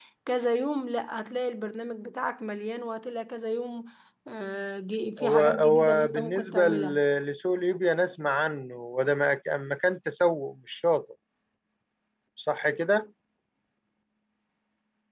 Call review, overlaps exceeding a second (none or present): present